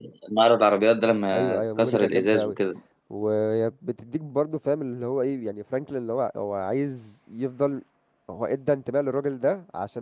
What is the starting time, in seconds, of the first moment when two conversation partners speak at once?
1.3 s

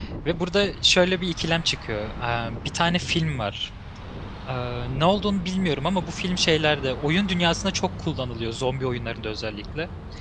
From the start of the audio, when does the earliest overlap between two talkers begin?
none

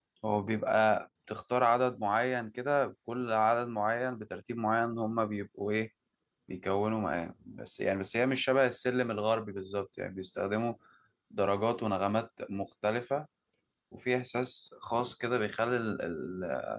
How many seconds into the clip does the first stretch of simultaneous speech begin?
none

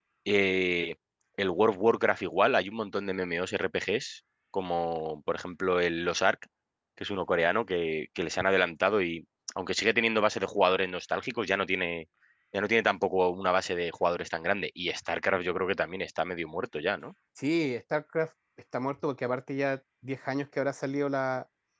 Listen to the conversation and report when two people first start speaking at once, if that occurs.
none

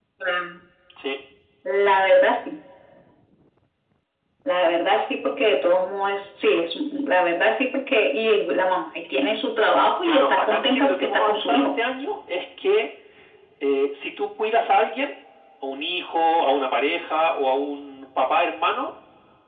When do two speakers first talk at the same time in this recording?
10.0 s

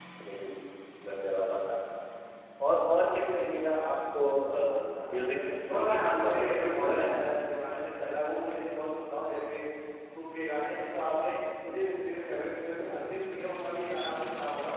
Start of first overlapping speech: 4.8 s

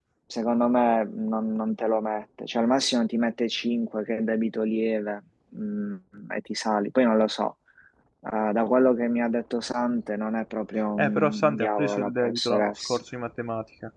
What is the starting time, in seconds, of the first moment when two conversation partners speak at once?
11.0 s

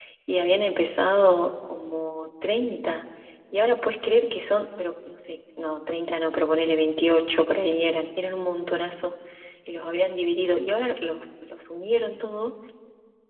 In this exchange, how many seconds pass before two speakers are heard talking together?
none

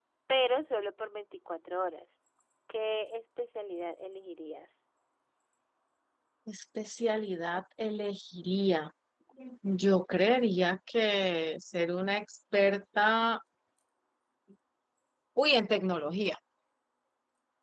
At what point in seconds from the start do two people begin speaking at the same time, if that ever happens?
none

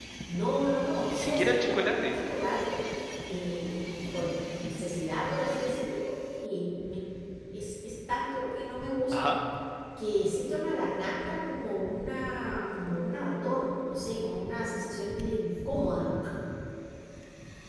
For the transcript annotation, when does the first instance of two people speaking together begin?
1.0 s

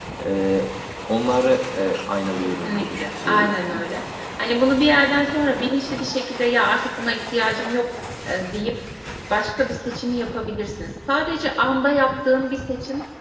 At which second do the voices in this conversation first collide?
2.4 s

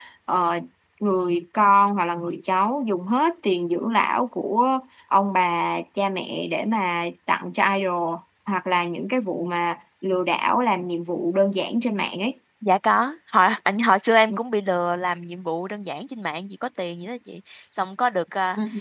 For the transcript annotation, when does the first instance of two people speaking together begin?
none

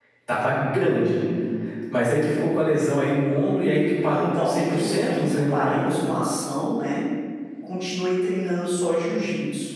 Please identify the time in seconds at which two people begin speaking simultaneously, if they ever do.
4.1 s

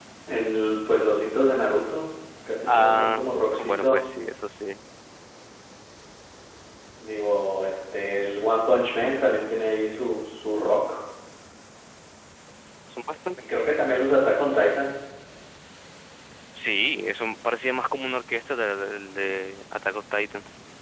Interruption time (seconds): 2.7 s

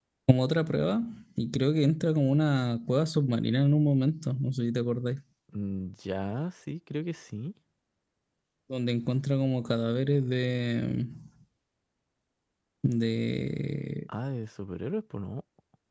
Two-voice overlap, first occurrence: none

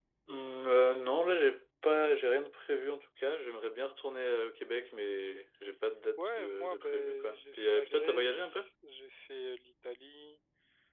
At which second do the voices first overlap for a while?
6.2 s

